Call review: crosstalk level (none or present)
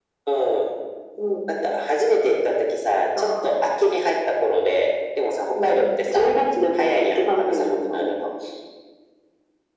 present